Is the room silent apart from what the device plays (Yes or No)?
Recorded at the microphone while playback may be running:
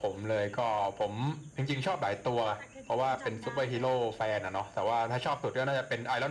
No